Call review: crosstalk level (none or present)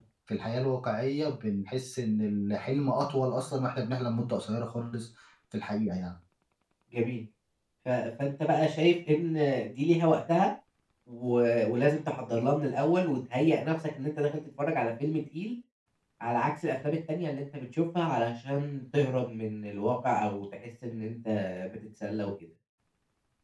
none